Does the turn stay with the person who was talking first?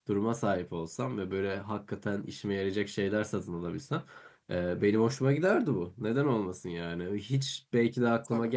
Yes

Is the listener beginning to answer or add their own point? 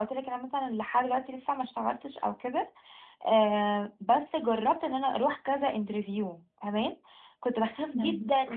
No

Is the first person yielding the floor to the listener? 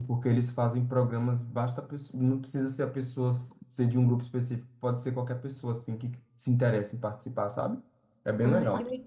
Yes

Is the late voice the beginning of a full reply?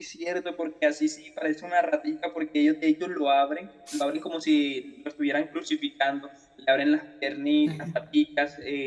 No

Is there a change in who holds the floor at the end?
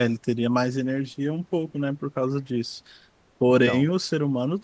No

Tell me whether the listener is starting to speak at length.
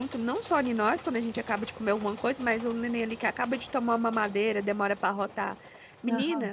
No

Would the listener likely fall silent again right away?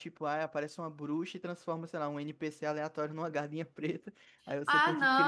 No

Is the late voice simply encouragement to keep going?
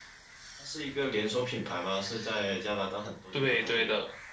No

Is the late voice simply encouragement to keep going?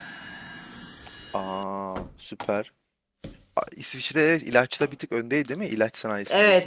No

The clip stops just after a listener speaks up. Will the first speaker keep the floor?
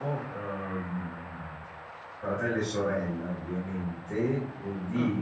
Yes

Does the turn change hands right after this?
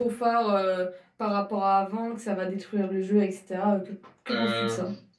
Yes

